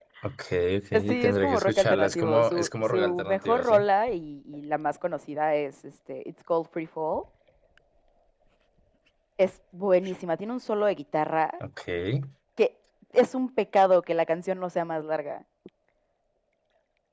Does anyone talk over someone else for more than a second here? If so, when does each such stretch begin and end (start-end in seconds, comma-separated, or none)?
1.1-3.9